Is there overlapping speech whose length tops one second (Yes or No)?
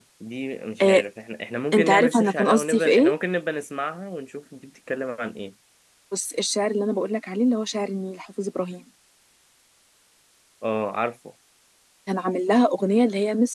Yes